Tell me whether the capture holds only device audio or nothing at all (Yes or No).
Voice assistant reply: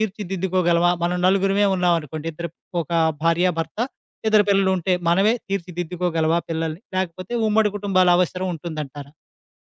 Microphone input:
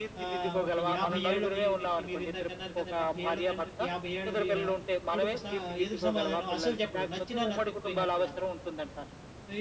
No